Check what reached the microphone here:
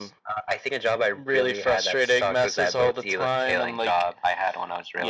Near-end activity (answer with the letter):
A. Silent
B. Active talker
A